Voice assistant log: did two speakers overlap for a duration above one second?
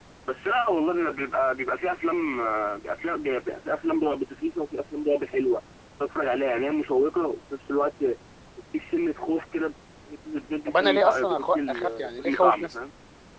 Yes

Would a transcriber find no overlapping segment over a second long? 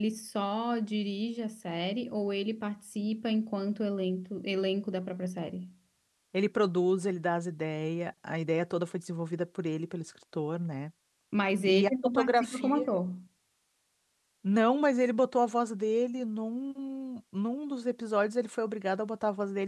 No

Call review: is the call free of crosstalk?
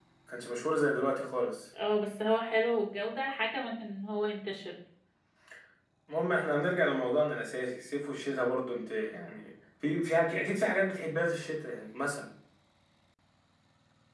Yes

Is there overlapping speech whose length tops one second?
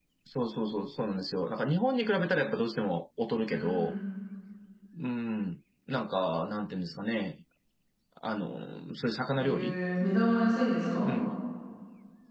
No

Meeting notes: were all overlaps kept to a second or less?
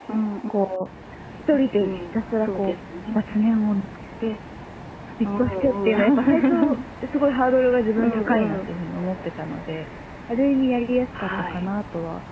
No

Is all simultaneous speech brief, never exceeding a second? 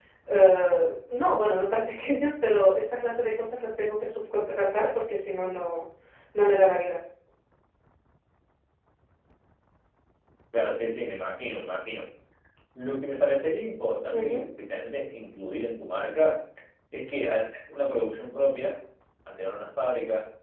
Yes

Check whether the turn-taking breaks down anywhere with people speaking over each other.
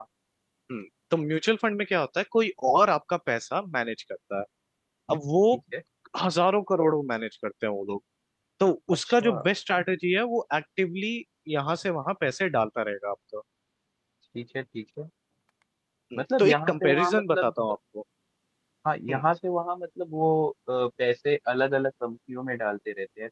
Yes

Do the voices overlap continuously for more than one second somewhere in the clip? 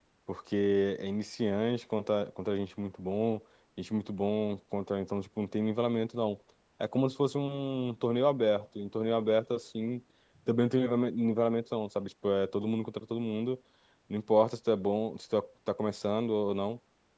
No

